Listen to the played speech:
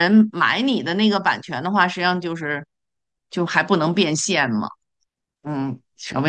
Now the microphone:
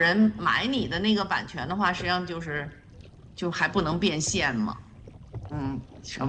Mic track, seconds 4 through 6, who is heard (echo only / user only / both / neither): echo only